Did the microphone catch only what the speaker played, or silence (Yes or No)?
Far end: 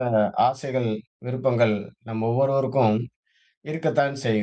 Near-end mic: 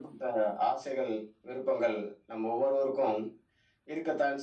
Yes